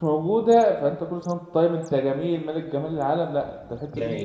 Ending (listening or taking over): taking over